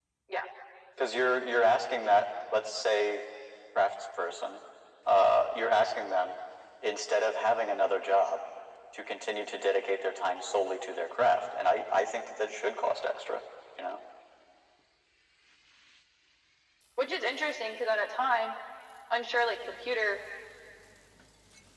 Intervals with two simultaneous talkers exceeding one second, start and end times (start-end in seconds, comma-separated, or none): none